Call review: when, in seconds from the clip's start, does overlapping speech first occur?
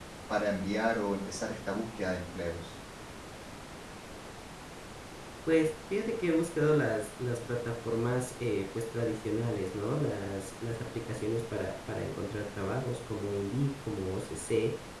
none

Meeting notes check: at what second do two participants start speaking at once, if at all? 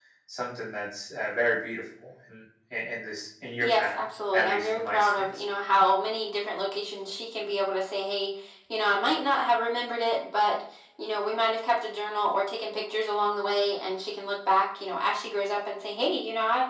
3.6 s

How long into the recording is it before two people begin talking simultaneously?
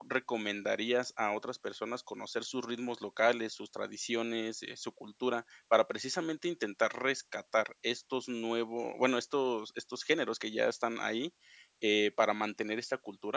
none

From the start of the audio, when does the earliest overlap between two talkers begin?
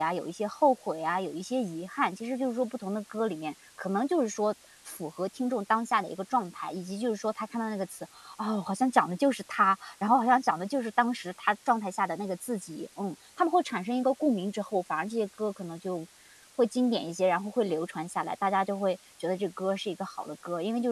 none

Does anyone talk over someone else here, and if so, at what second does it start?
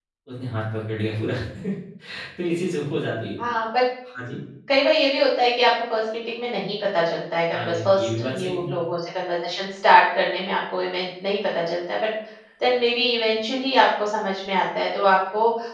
7.5 s

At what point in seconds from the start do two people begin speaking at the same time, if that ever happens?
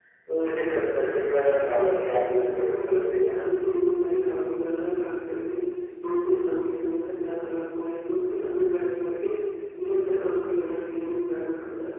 1.6 s

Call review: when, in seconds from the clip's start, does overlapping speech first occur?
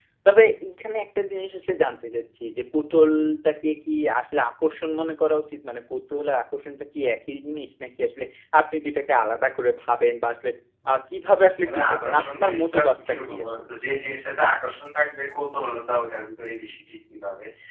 11.6 s

